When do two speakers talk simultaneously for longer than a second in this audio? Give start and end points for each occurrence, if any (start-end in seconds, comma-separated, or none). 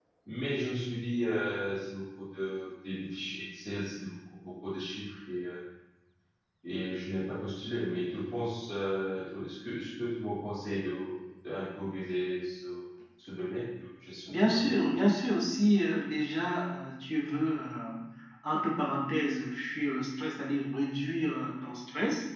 none